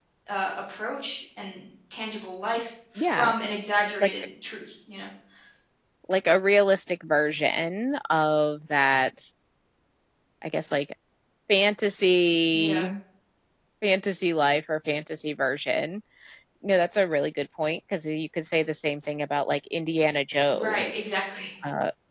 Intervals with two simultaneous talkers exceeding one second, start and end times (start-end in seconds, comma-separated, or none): none